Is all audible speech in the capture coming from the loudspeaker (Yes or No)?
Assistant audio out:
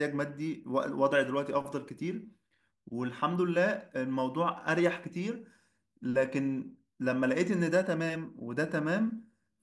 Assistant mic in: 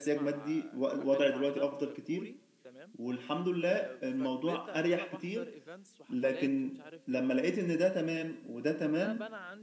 No